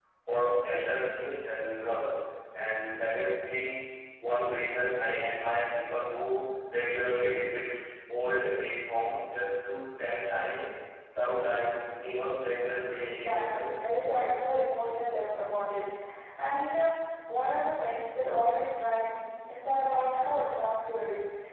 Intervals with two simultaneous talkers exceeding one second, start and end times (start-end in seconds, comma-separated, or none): 13.0-14.4